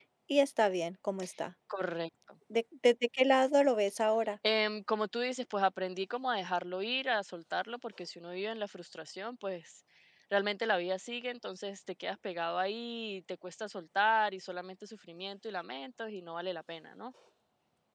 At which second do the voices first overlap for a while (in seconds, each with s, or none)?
none